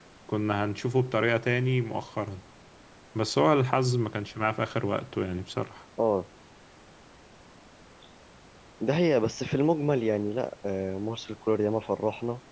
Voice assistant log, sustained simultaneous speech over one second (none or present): none